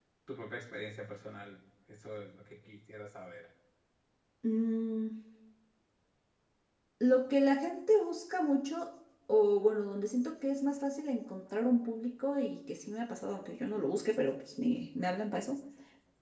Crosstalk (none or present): none